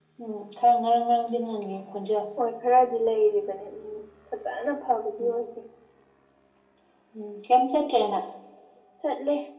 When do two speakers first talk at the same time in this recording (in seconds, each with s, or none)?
none